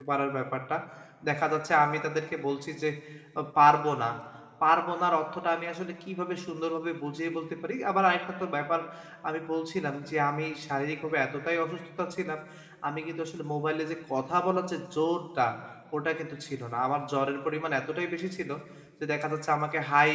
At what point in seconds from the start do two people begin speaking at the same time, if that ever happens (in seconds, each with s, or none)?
none